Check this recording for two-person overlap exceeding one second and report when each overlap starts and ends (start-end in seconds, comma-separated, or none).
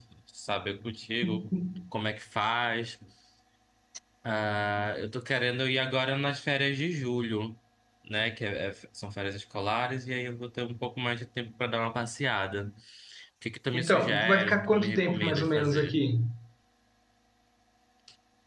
13.7-15.9